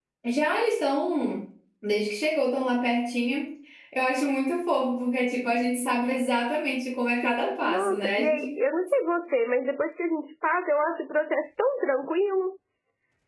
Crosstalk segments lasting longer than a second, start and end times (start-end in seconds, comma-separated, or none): 7.2-8.6